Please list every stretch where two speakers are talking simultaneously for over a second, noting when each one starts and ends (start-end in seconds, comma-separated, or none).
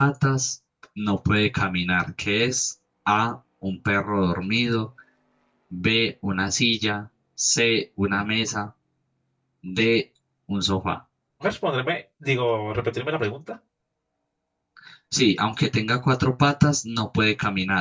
none